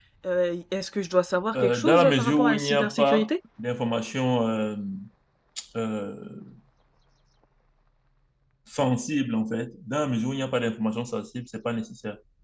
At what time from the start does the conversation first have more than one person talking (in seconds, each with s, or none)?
1.5 s